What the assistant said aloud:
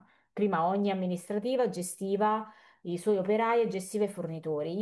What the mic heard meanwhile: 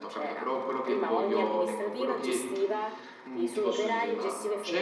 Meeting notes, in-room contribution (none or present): present